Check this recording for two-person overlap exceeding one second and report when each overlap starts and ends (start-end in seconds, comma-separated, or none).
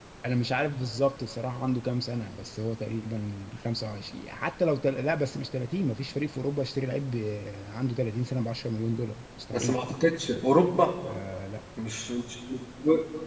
none